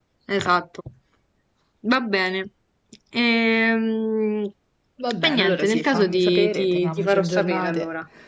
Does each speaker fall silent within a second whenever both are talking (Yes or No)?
No